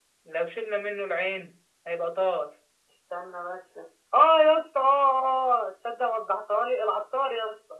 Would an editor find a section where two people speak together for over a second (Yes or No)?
No